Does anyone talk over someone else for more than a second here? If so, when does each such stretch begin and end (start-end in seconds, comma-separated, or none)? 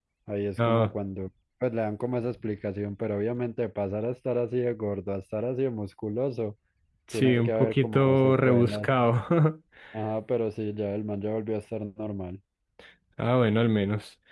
7.1-8.9